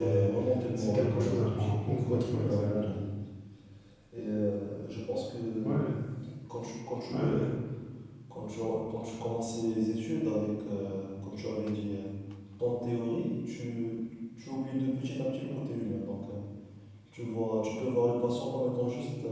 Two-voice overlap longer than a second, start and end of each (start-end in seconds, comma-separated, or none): 0.8-2.8